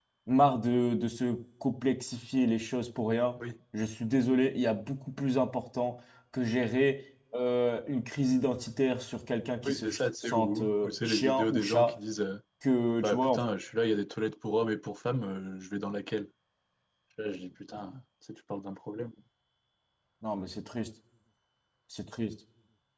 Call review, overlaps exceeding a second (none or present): present